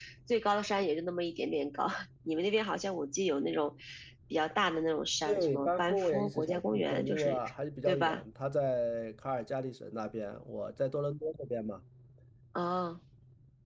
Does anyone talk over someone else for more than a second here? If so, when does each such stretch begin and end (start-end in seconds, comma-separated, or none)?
5.2-7.4